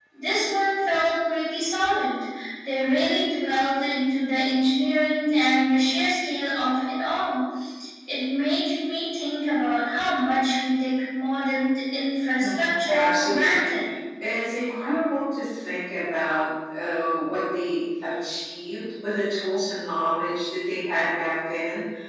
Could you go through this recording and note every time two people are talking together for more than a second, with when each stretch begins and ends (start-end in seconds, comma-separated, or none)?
12.4-13.7